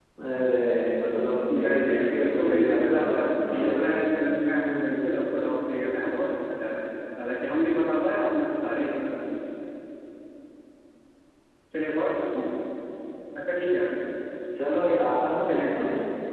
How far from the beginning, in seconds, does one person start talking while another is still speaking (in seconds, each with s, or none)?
1.5 s